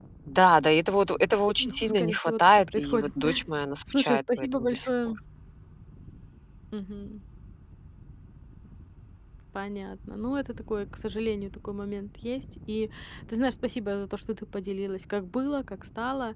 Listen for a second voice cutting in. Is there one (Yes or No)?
Yes